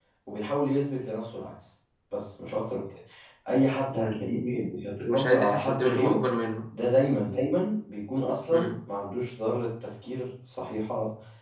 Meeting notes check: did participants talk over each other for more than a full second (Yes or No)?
Yes